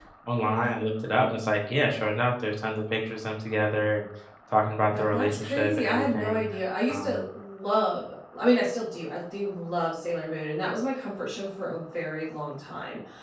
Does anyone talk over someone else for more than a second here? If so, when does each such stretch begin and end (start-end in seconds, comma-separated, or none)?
4.9-6.4